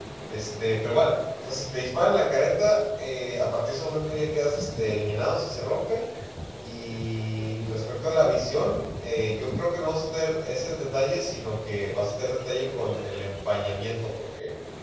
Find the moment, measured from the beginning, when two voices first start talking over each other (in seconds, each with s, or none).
none